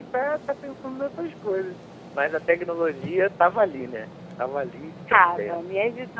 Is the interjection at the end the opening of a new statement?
Yes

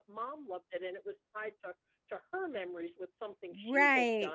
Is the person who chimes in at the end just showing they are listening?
Yes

